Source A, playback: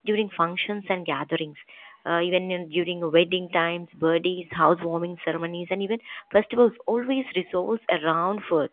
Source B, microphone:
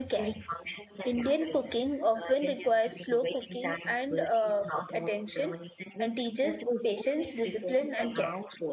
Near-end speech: present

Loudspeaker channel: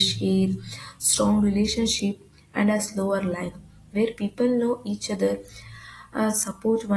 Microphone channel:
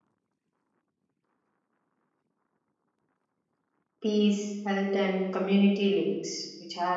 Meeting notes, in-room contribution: present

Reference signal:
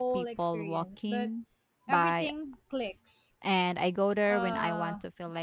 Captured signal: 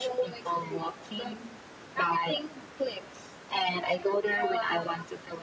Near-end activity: none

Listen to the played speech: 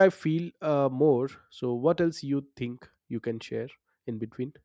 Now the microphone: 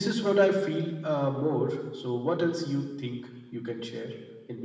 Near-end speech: none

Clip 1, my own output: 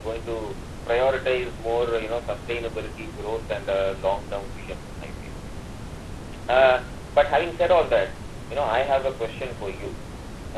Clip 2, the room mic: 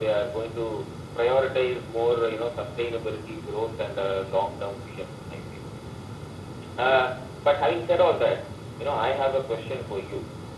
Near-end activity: none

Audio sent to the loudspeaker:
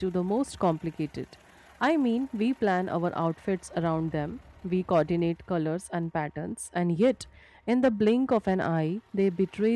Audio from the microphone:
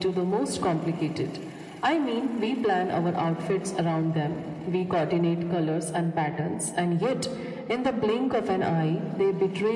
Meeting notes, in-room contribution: none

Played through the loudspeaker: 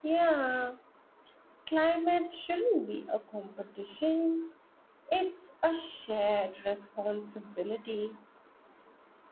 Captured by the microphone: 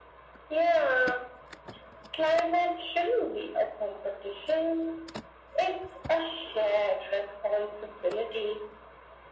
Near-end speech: none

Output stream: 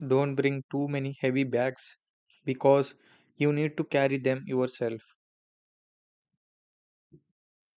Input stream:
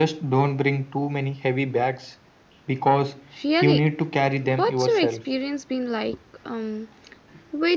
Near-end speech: present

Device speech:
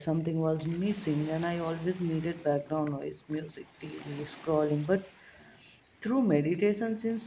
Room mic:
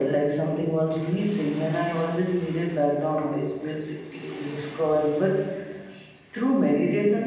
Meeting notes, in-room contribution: none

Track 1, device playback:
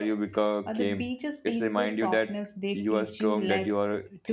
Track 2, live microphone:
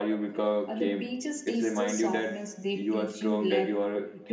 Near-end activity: none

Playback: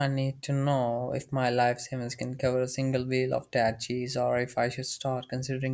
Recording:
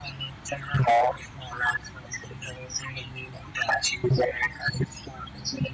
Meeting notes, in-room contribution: none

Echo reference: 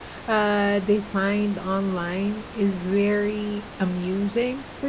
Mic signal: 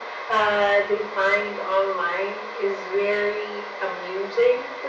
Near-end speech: none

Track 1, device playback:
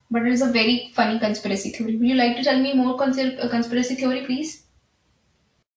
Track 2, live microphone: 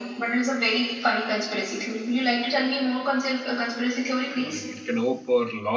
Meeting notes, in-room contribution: present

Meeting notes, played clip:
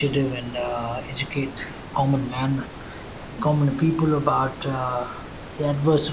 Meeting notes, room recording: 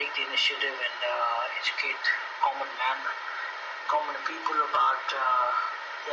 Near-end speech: none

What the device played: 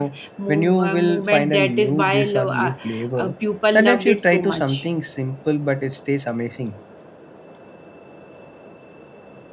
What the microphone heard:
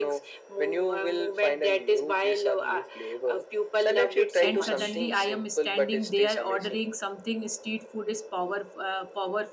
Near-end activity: present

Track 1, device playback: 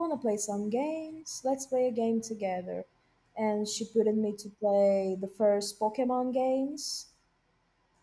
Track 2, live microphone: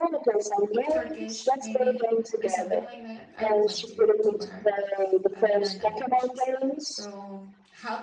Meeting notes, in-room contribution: present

